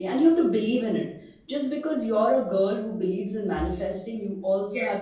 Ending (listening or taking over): listening